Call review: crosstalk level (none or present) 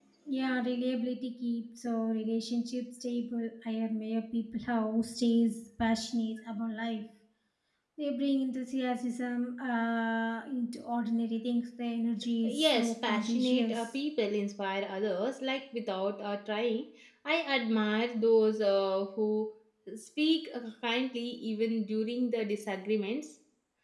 present